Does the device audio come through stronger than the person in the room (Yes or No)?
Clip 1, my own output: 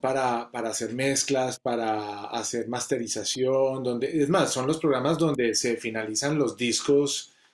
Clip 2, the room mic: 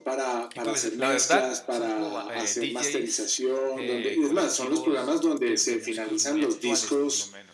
Yes